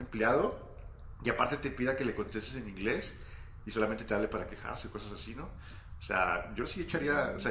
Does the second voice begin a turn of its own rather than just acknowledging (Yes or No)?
No